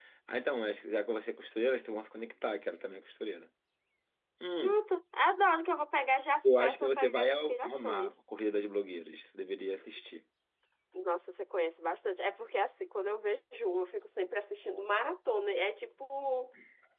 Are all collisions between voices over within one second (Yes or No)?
No